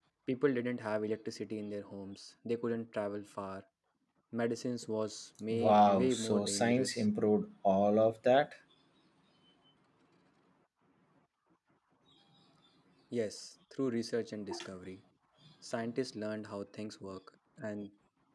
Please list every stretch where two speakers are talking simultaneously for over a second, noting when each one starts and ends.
5.5-7.0

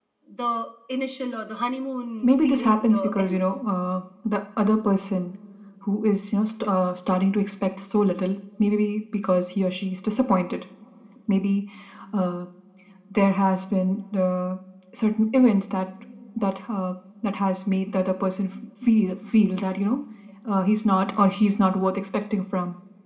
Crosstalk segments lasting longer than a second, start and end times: 2.2-3.6

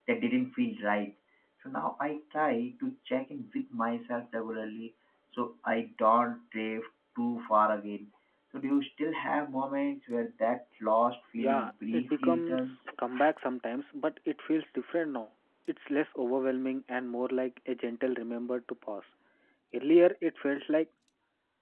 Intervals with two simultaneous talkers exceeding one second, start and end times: 11.4-12.8

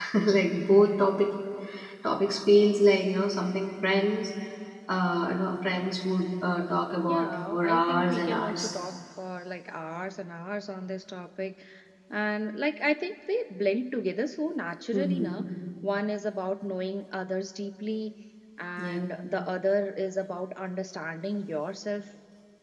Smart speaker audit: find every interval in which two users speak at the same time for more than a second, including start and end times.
7.1-8.7

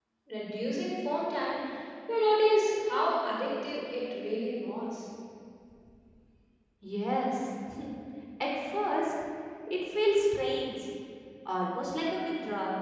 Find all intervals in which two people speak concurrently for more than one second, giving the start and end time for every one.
none

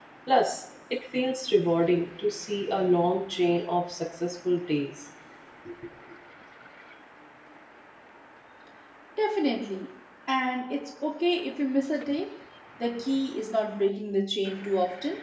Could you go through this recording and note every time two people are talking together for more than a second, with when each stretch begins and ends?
none

